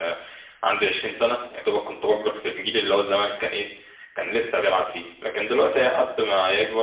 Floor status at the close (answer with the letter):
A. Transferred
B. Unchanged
B